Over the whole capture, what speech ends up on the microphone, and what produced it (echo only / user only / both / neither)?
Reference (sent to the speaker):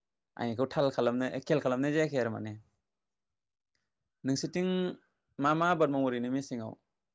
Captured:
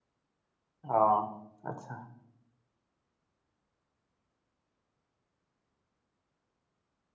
user only